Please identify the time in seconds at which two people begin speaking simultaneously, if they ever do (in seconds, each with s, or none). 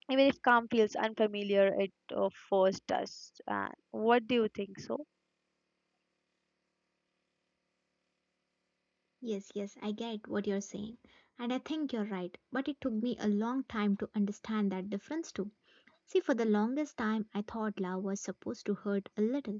none